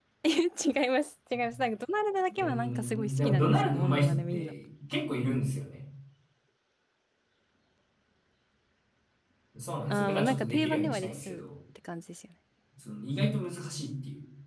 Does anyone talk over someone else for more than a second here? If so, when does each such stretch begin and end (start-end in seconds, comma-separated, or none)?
2.4-4.5, 9.9-11.4